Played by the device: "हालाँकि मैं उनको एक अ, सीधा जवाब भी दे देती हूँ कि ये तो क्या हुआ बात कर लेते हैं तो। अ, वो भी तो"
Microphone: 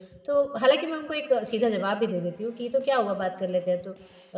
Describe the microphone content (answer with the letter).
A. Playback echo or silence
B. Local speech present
A